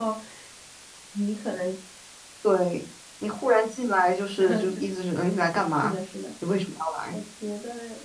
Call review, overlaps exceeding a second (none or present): none